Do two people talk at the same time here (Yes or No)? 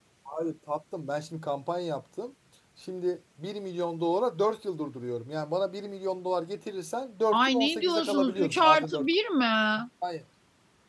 Yes